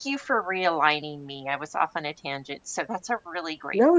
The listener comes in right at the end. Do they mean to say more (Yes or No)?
Yes